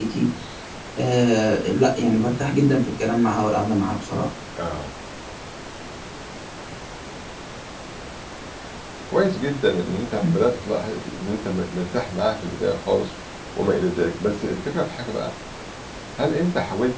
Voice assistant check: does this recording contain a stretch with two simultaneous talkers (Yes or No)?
No